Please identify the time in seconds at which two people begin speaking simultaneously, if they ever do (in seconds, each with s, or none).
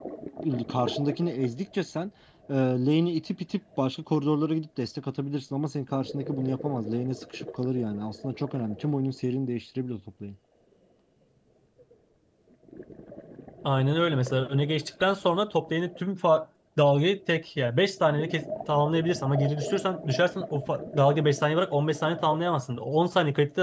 none